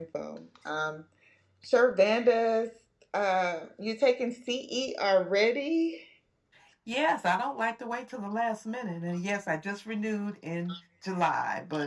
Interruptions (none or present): none